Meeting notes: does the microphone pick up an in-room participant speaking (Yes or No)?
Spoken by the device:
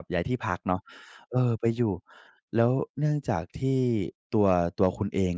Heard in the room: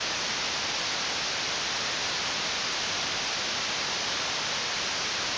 No